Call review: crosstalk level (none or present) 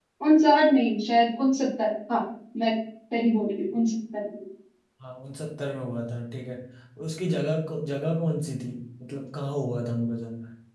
none